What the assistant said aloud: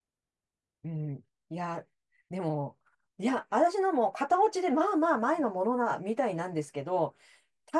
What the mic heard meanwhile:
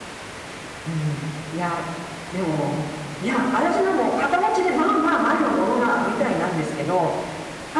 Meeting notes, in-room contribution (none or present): none